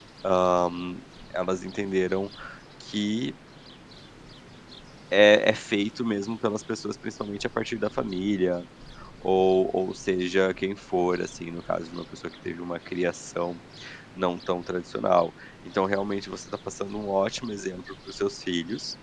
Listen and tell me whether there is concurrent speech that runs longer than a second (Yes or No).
No